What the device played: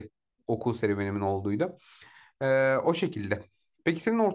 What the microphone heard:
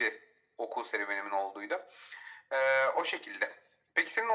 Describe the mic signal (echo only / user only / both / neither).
echo only